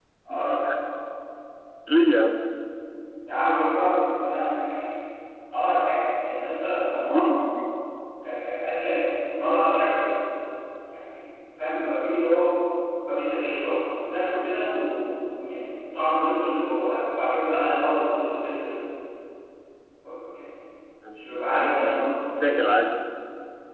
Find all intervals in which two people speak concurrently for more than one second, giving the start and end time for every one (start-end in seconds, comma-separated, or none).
21.2-22.4